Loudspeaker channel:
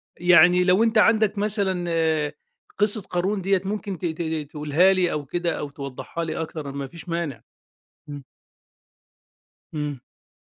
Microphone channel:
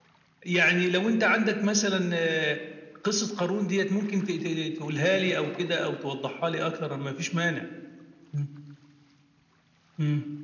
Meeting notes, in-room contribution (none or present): none